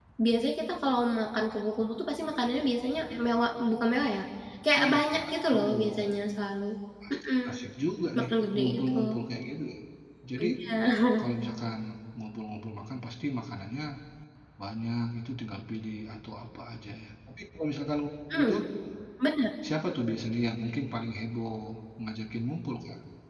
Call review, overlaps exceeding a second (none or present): present